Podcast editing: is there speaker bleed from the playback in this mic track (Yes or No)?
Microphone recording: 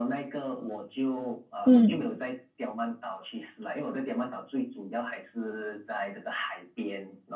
Yes